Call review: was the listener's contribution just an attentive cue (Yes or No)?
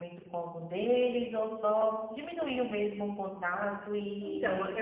No